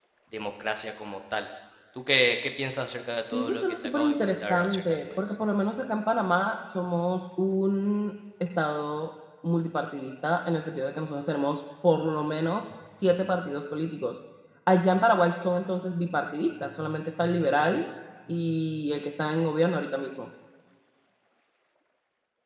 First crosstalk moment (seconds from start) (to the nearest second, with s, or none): 3 s